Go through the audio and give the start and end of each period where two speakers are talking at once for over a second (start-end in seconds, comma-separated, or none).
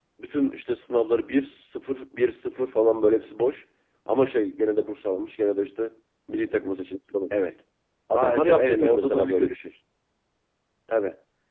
8.1-9.6